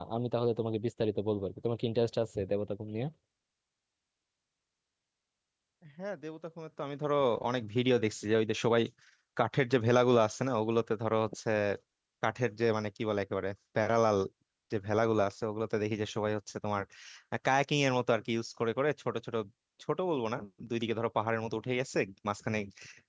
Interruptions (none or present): none